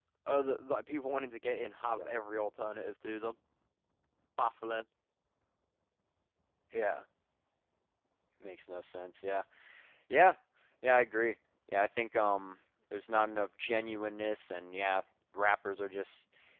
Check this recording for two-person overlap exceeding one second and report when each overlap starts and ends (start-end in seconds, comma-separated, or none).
none